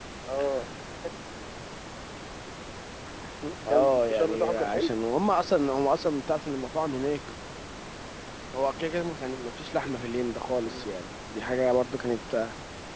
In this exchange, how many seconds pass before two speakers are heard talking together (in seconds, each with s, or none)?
3.7 s